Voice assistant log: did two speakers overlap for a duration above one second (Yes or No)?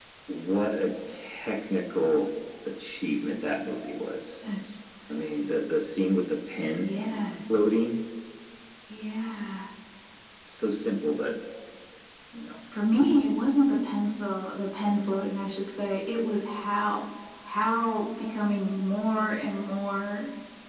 No